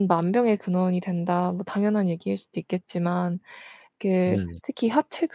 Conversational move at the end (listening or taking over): listening